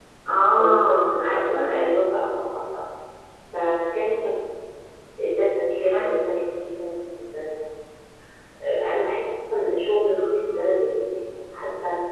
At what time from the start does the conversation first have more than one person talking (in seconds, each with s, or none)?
0.6 s